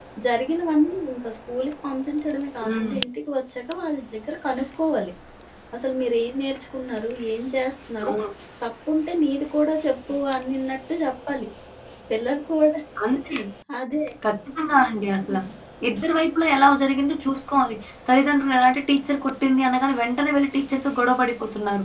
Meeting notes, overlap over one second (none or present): none